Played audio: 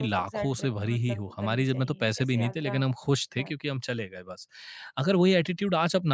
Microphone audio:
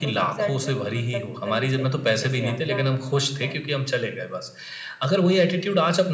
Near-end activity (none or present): none